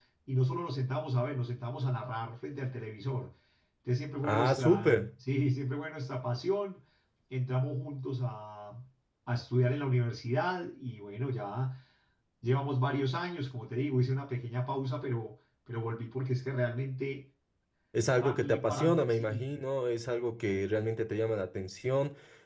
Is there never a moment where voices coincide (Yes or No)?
No